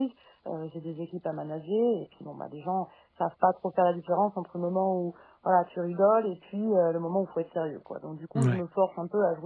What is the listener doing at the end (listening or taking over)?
listening